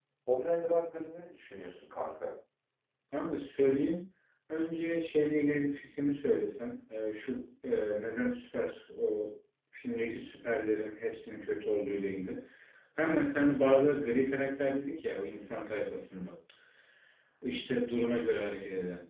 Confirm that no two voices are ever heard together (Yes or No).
Yes